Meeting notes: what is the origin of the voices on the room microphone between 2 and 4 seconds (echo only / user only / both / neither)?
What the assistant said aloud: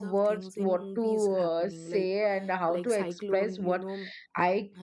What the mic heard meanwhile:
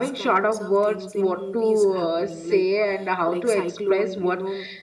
echo only